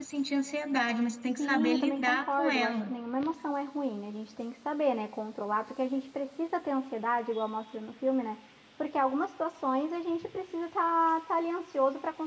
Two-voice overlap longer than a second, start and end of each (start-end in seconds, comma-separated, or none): 1.4-2.9